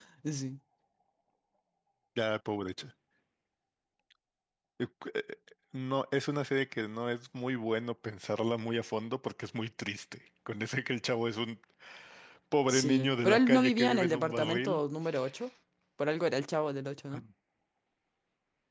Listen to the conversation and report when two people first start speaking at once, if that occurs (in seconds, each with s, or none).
12.7 s